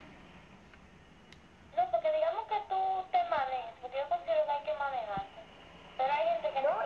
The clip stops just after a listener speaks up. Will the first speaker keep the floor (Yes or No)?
No